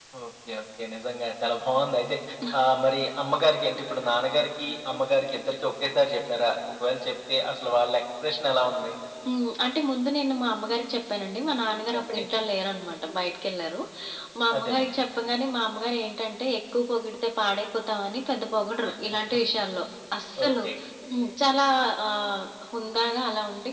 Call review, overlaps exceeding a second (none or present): none